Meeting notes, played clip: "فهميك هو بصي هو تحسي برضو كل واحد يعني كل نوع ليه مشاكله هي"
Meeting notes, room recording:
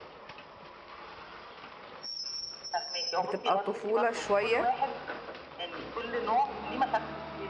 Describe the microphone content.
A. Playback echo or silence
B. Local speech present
B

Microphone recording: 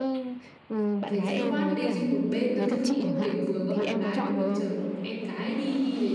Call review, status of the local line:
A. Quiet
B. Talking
B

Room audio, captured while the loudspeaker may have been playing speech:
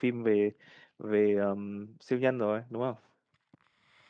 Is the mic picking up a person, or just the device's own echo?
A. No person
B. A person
B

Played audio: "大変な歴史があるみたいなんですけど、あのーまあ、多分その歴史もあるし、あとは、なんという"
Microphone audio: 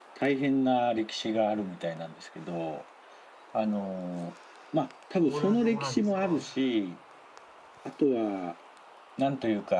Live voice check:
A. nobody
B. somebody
B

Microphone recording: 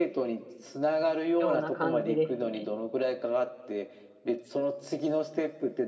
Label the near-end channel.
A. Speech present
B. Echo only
A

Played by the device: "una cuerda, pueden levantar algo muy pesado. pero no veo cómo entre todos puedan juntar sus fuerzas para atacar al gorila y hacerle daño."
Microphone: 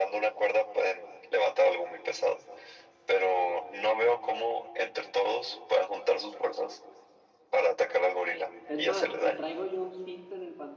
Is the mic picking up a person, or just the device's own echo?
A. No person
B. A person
B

